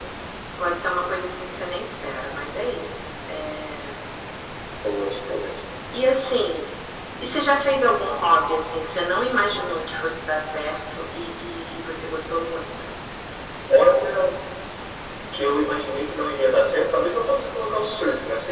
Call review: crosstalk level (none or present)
none